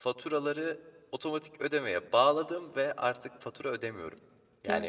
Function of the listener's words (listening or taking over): taking over